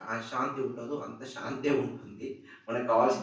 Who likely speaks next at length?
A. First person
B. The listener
B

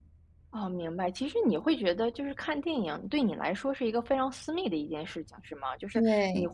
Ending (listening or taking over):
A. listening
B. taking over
A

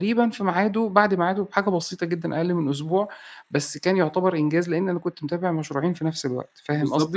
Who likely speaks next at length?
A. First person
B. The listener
B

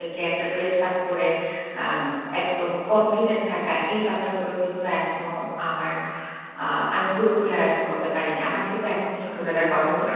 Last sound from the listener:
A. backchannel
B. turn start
A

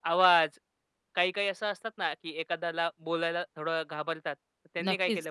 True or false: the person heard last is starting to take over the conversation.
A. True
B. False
A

